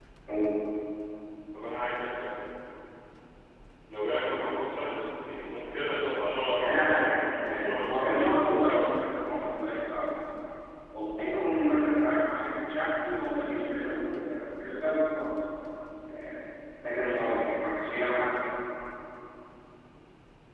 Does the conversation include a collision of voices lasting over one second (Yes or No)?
Yes